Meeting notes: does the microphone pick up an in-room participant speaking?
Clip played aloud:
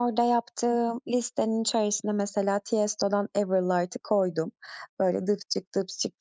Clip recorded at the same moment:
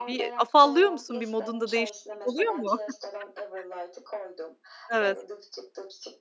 Yes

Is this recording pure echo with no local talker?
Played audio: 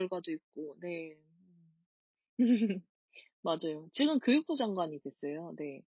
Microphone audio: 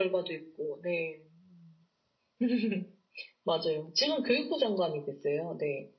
Yes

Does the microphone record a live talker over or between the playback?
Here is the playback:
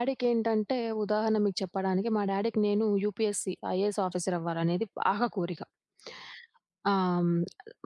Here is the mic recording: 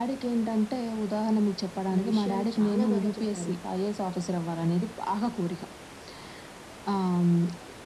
Yes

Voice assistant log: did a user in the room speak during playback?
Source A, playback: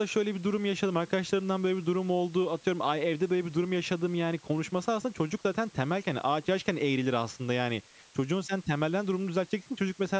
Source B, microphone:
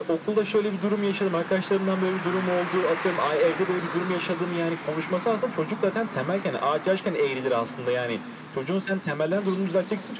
No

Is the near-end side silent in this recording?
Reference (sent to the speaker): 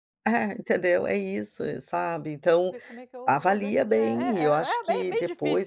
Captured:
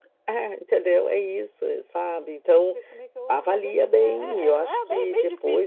Yes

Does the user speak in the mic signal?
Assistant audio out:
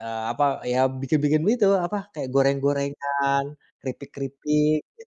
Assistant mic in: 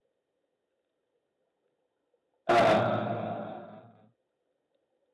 Yes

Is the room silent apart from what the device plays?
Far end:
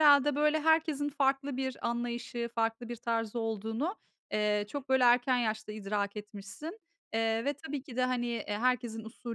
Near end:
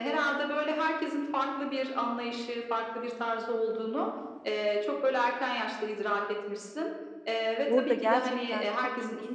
No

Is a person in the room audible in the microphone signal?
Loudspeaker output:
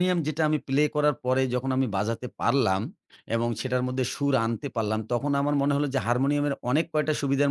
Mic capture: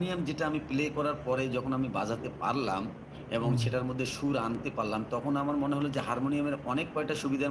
Yes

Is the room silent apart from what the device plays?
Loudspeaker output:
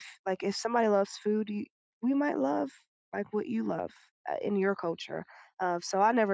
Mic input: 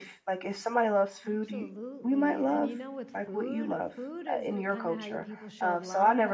No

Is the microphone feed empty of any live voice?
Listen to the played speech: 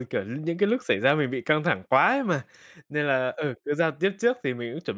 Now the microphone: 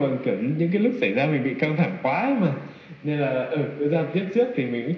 Yes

